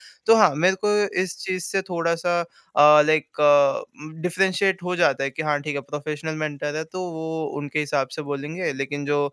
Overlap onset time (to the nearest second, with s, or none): none